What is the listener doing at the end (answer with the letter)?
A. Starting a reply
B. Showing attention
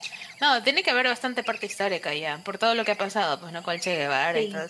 A